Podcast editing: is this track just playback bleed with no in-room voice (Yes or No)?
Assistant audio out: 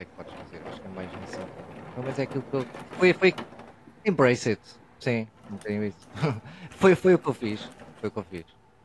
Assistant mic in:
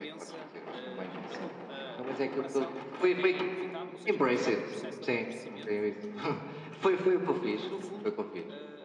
No